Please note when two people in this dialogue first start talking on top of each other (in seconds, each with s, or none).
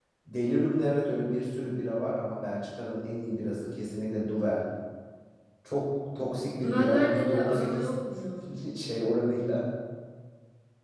6.6 s